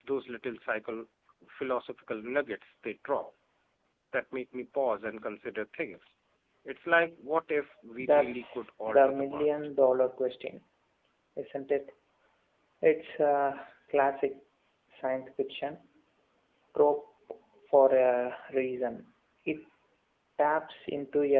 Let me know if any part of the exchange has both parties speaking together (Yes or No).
Yes